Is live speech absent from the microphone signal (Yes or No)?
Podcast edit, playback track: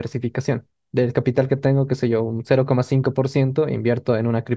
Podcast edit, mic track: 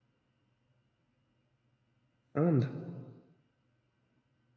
No